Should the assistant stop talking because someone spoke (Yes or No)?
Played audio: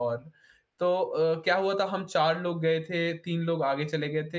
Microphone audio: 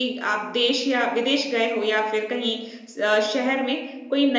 Yes